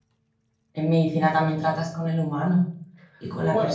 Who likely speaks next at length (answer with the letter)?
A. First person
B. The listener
B